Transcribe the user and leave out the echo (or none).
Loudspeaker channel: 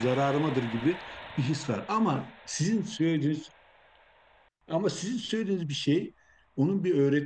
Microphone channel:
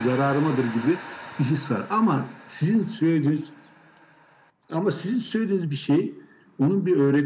none